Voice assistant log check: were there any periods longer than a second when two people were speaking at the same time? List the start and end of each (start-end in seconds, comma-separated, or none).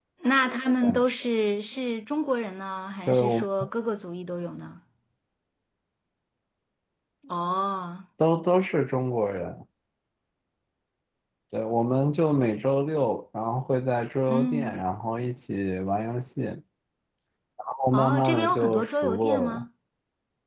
17.9-19.6